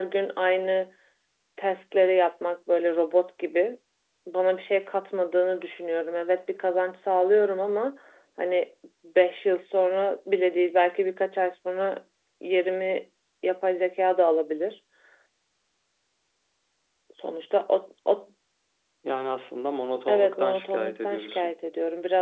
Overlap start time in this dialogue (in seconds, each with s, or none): 20.1 s